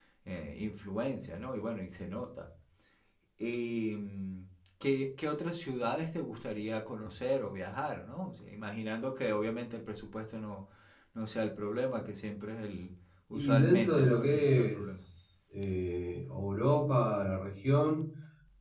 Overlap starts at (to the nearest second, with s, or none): 13 s